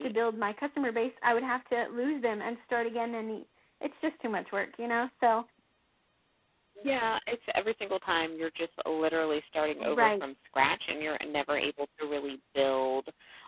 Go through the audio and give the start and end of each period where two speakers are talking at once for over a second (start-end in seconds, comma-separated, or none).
none